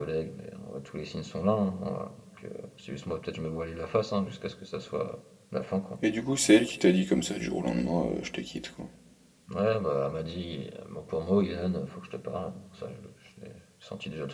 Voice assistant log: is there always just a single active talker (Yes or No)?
Yes